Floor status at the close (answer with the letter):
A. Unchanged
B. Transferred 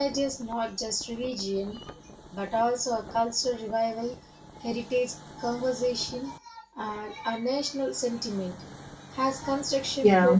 A